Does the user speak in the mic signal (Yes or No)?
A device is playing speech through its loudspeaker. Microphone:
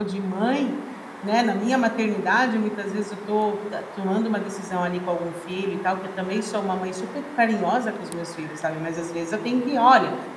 Yes